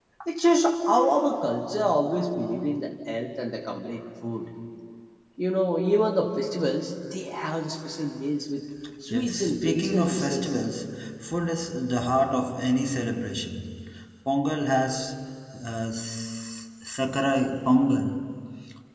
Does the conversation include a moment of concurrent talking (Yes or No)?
Yes